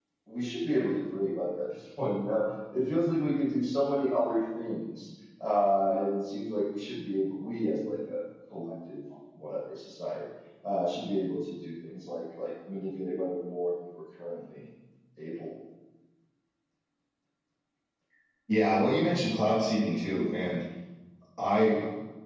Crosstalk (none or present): none